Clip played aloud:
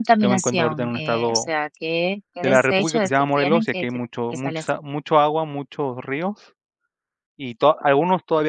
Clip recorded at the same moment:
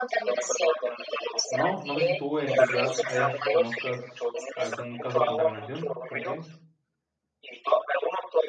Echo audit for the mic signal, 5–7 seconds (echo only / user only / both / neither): both